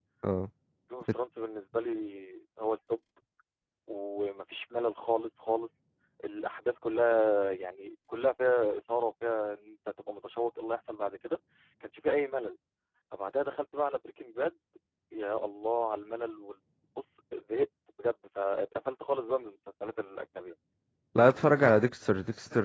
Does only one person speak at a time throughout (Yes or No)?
Yes